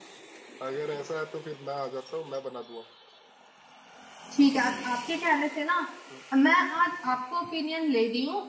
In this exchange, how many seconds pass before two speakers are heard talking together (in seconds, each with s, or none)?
none